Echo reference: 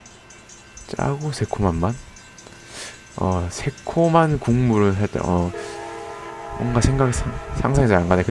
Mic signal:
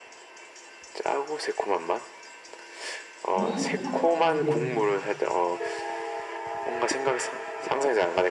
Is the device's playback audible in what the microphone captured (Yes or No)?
Yes